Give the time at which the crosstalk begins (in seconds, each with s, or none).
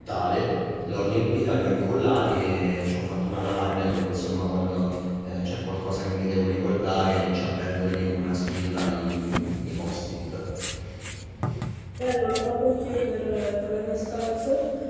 none